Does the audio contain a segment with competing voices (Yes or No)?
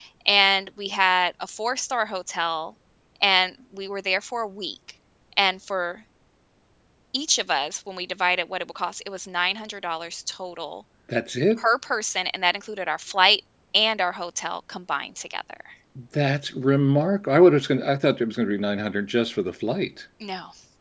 No